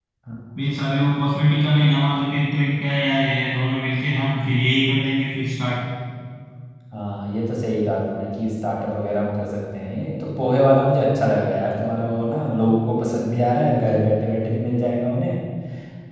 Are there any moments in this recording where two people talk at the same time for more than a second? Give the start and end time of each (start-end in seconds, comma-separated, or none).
none